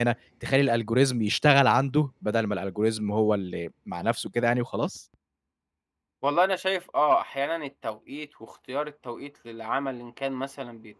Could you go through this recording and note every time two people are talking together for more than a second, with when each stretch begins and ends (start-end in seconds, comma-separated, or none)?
none